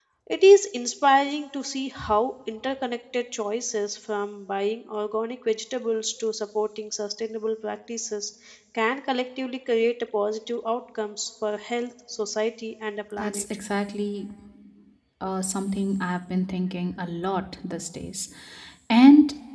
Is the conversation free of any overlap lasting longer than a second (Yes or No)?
Yes